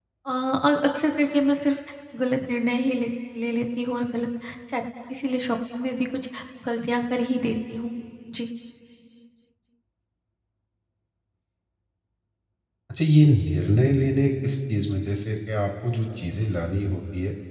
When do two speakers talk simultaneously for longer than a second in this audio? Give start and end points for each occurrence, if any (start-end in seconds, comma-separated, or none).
none